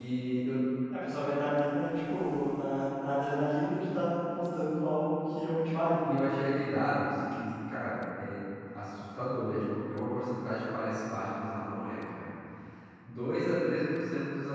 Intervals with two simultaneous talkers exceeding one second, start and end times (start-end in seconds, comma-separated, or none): none